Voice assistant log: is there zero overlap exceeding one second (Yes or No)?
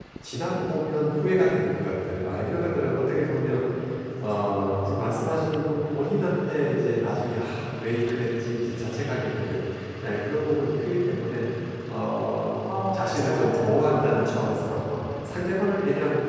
No